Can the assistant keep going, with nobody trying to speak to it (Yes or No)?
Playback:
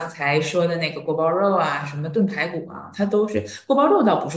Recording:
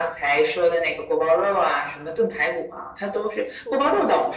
No